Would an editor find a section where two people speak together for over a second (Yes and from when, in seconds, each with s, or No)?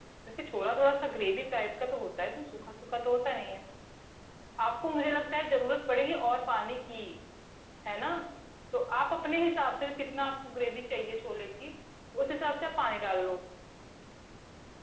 No